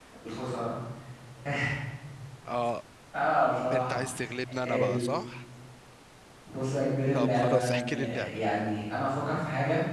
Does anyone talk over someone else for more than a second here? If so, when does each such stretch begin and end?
7.1-8.4

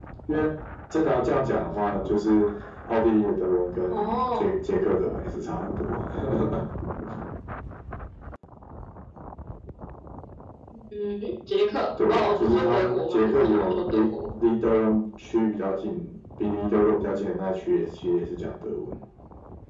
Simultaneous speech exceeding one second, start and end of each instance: 12.1-14.0

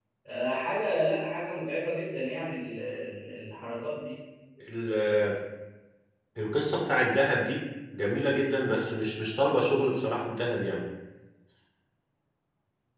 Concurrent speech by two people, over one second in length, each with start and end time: none

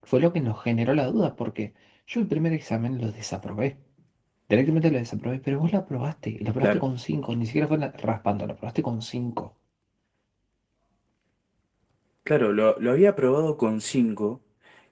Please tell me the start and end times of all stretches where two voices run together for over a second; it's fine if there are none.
none

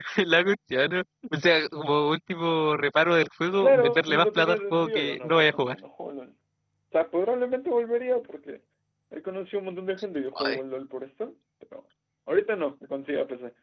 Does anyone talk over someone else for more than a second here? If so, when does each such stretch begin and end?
3.6-5.8

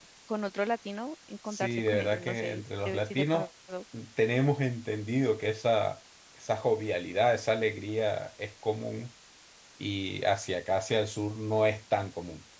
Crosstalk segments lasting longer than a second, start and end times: 1.5-3.5

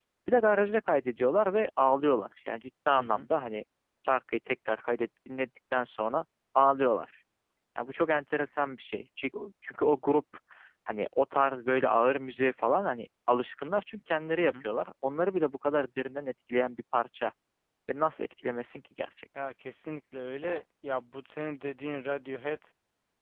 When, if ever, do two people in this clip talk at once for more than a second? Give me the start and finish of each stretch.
none

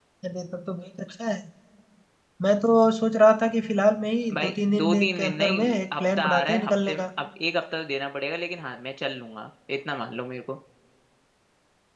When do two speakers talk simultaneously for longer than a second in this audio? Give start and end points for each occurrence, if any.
4.3-7.1

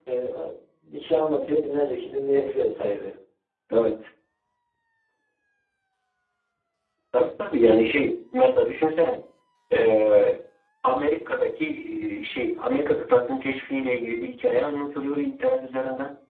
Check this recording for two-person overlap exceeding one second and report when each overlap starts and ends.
none

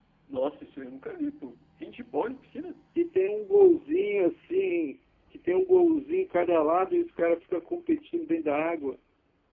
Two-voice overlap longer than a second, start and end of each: none

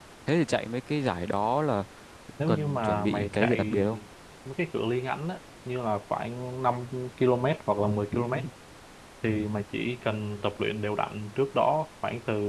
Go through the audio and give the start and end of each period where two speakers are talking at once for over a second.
2.5-3.8

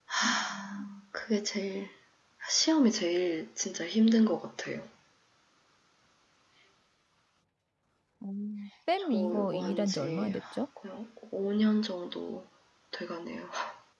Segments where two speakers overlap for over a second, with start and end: 9.0-10.4

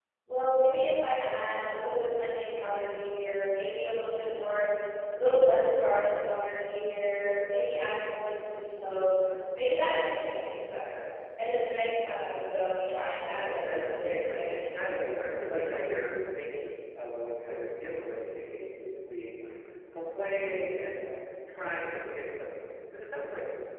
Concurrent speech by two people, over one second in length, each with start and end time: 13.6-15.2

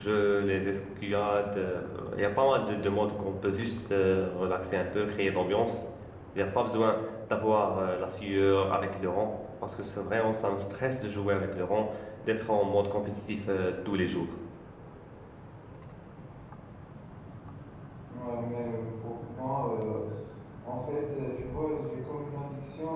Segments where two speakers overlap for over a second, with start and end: none

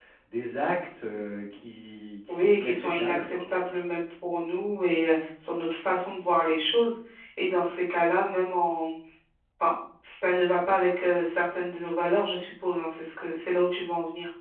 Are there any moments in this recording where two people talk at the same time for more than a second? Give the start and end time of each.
2.3-3.9

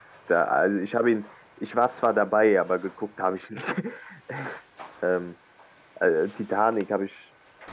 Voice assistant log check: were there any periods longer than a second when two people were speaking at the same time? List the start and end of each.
none

